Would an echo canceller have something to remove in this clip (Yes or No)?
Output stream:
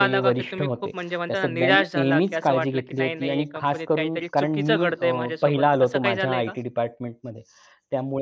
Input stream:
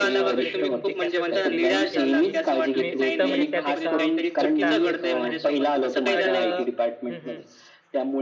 Yes